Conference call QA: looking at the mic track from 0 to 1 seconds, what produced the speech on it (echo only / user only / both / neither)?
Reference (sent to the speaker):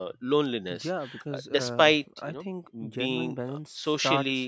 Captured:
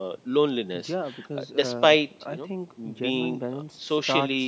echo only